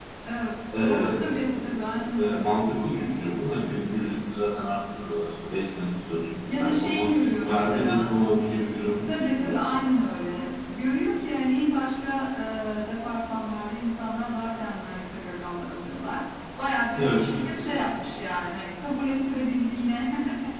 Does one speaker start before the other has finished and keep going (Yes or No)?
Yes